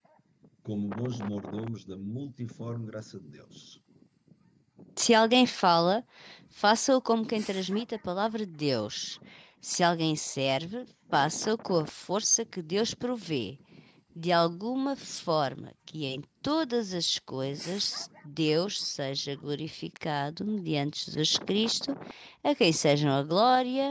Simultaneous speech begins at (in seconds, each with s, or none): none